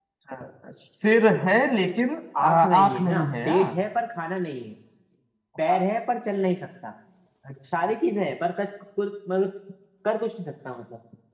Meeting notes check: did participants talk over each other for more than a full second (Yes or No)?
Yes